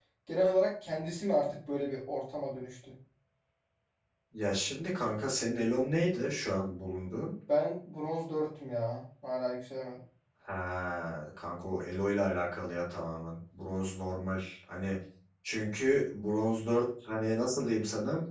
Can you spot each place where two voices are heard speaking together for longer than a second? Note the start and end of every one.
none

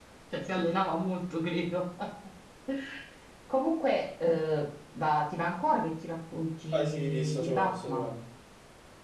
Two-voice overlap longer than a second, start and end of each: 6.7-8.1

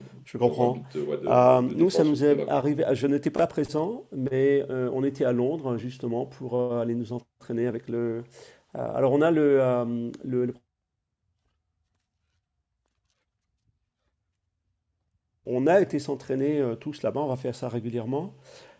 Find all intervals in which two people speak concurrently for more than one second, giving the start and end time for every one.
1.3-2.6

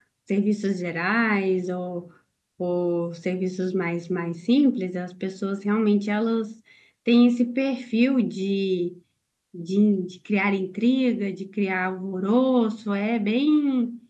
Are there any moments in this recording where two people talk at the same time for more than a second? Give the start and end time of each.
none

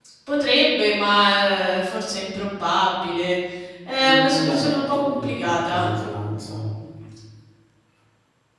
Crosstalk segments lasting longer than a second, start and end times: 4.0-5.9

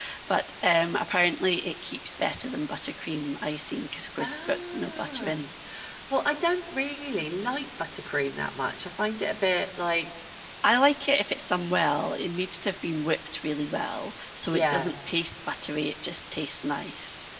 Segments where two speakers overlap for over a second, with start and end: 4.2-5.4

